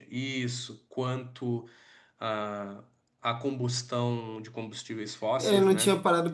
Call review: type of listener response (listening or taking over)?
taking over